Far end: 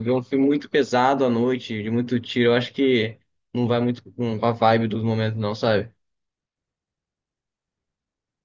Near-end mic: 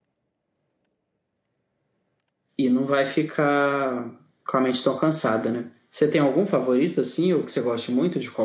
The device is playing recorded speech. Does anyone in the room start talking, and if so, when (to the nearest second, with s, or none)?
3 s